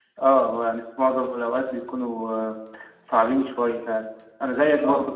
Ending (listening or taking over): listening